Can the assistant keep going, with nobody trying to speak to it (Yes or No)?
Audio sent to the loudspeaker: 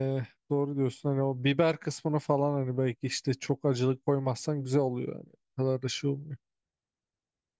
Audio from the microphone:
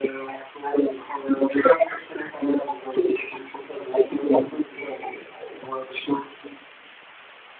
Yes